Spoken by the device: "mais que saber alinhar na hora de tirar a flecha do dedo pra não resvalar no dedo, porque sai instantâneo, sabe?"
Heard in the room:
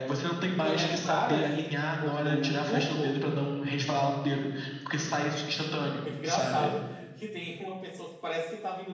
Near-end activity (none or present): present